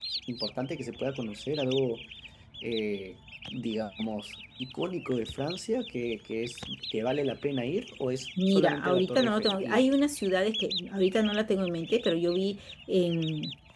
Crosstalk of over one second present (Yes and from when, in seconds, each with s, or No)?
Yes, from 8.4 s